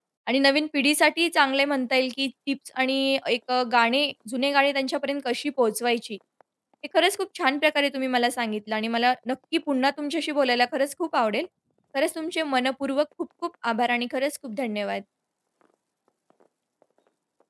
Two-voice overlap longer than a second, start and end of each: none

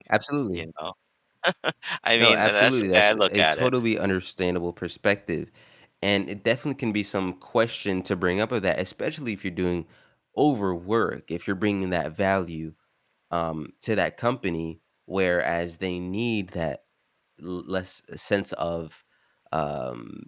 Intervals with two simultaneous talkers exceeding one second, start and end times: 2.2-3.7

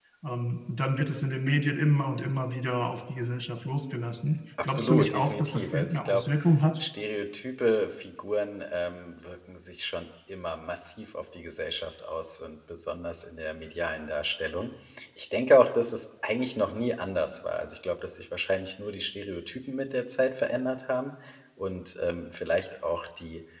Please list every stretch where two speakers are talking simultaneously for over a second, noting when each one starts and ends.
4.6-6.2

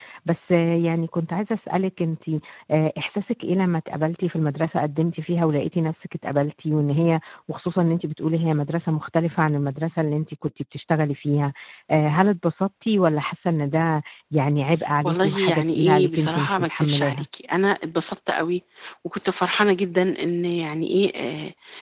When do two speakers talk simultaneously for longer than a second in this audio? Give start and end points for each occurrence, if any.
15.0-17.2

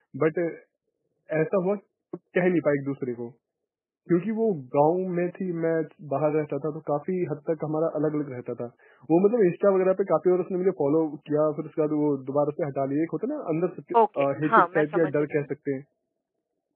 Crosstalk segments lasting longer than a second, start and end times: 14.2-15.4

